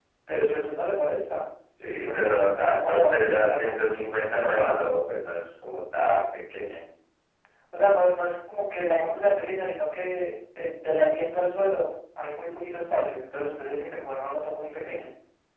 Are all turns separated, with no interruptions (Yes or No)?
No